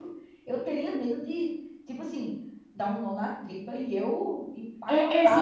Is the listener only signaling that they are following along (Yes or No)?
No